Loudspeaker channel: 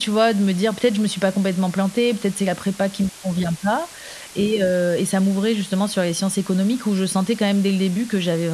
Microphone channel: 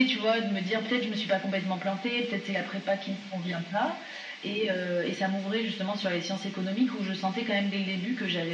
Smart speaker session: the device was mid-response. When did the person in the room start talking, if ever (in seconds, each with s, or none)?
none